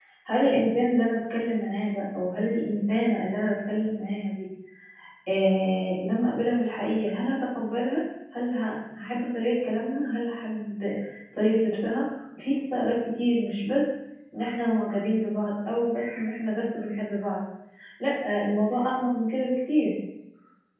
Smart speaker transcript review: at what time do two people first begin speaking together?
none

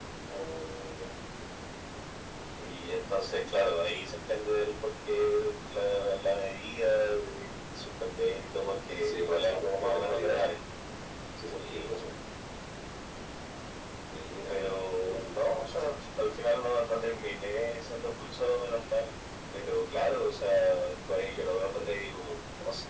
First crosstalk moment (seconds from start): 9.0 s

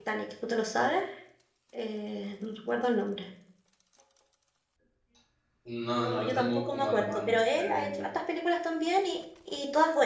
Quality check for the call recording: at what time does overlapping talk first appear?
6.0 s

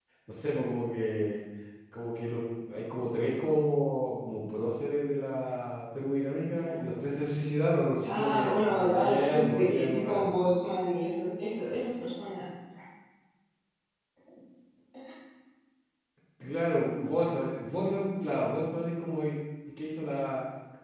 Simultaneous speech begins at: 8.1 s

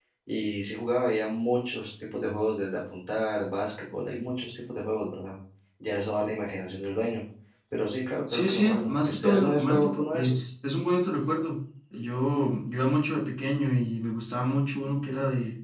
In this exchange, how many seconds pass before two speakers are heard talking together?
8.3 s

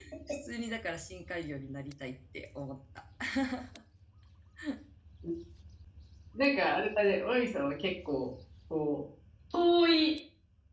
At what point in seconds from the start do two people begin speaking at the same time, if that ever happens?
none

